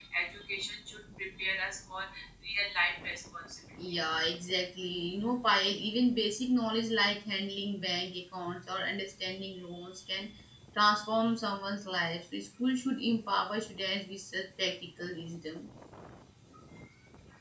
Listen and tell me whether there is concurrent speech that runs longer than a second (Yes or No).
No